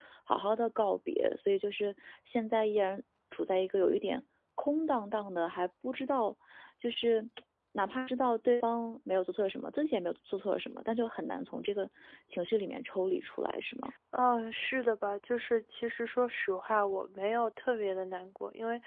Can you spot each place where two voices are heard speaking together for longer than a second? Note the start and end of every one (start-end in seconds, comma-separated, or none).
none